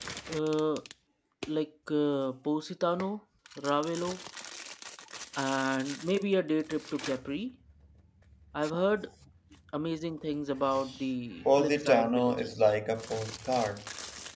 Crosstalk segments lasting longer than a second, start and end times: 11.4-12.7

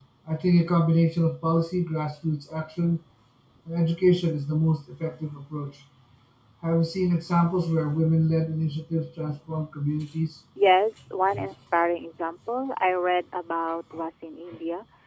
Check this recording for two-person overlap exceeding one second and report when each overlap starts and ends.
none

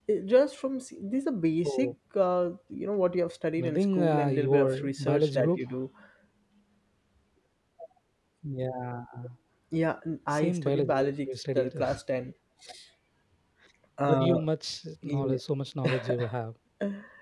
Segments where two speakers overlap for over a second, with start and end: 3.6-5.6, 10.3-11.7

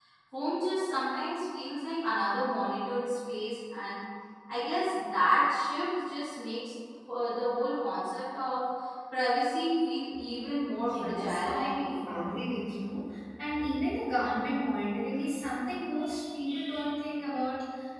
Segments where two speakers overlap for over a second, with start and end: 10.8-12.2

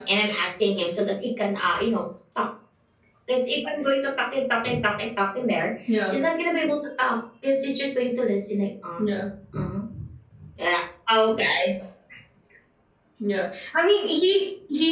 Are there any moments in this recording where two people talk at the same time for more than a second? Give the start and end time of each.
none

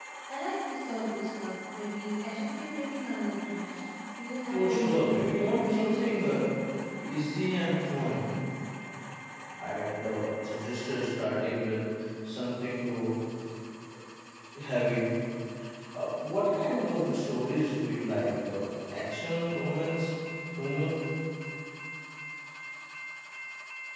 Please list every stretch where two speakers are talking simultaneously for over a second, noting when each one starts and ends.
4.5-6.2

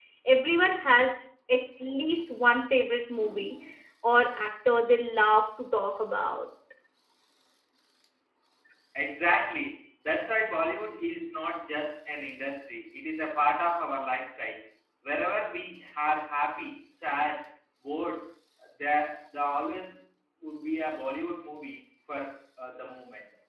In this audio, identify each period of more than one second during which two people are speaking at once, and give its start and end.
none

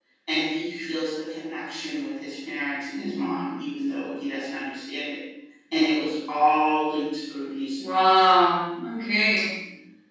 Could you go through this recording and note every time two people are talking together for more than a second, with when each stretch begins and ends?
none

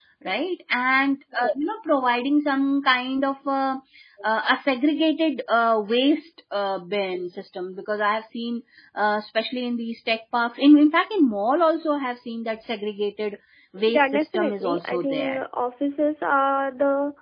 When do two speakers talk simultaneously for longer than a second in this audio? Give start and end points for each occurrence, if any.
13.9-15.4

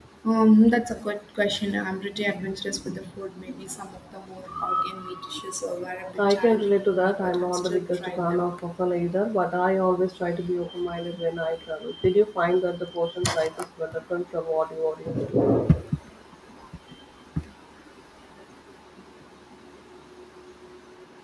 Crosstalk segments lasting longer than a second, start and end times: 6.2-8.4

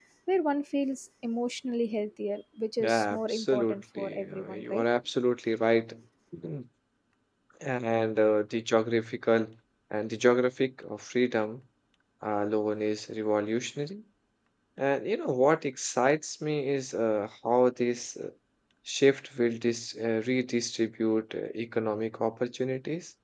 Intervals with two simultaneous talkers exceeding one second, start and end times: 2.8-4.8

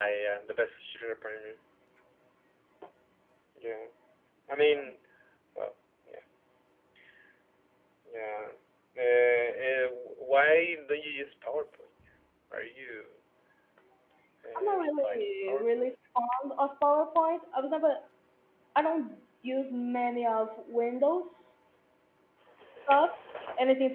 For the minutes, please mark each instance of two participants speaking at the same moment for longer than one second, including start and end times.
14.6-16.0

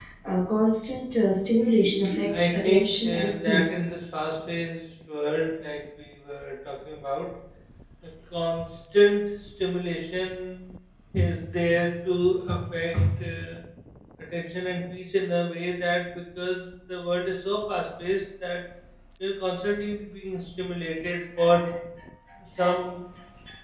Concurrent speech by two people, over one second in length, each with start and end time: 2.3-3.9

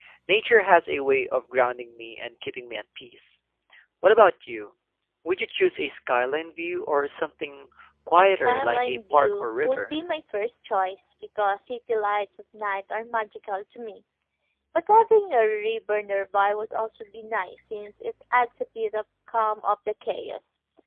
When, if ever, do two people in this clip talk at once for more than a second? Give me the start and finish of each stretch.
8.2-9.9

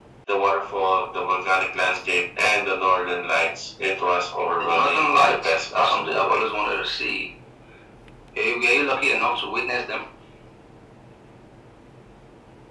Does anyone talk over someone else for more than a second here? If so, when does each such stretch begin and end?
4.6-6.4

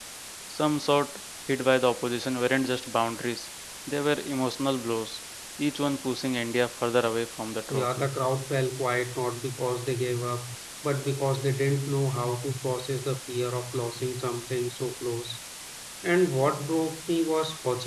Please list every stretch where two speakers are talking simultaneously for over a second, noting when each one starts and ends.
none

